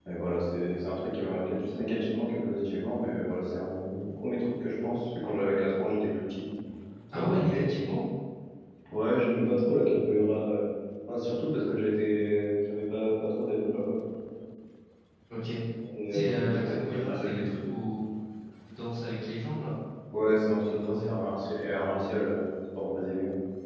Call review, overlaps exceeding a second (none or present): present